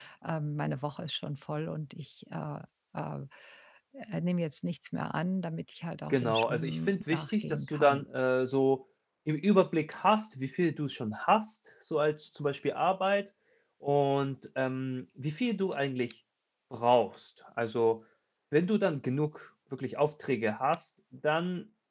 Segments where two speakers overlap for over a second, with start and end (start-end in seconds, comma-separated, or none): 6.1-8.0